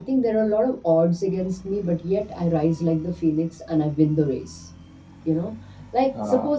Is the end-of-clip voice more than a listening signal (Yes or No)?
No